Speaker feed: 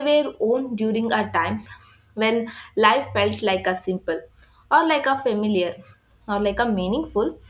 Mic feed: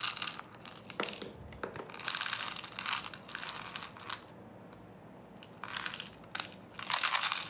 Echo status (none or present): none